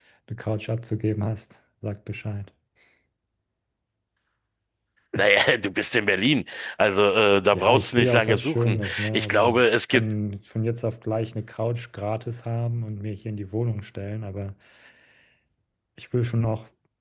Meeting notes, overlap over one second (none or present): present